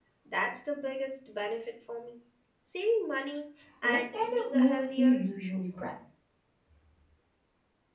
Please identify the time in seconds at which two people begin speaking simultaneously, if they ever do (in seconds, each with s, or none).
3.8 s